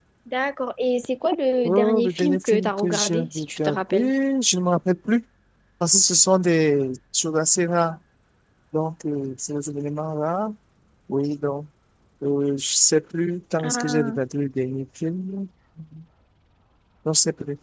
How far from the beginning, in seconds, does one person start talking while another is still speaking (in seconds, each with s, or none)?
1.6 s